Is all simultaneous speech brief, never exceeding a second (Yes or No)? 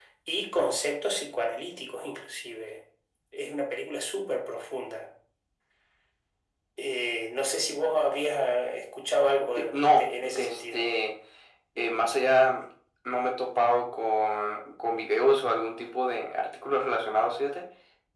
No